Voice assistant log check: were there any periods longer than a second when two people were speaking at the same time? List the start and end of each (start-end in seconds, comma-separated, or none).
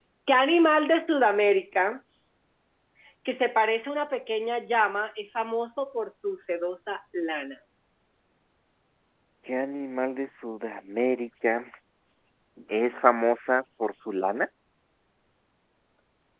none